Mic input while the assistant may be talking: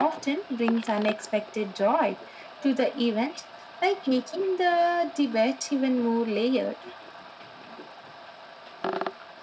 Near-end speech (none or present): none